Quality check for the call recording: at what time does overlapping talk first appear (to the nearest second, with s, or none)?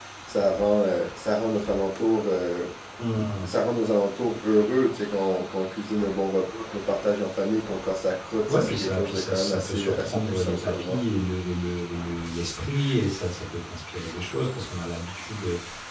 8 s